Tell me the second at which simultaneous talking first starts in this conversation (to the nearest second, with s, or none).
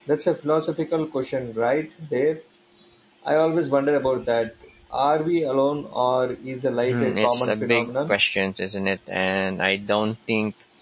7 s